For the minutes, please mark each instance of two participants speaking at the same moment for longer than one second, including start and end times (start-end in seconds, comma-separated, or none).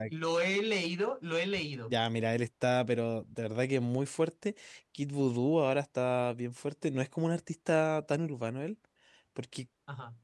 none